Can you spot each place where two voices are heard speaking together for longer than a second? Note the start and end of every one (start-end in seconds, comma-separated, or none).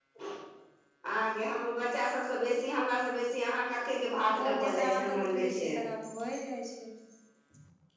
4.4-5.8